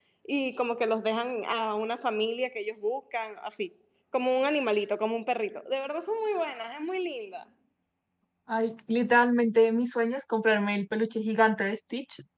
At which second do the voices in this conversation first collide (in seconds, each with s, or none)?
none